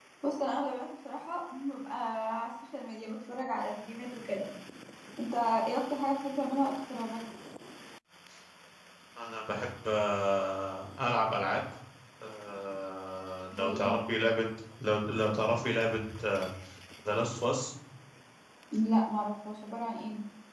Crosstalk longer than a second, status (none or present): none